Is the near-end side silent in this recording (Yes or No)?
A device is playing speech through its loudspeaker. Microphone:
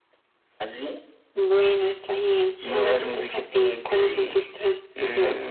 Yes